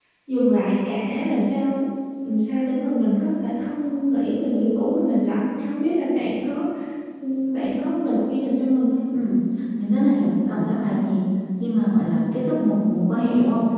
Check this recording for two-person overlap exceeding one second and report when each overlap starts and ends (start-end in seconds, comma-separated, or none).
none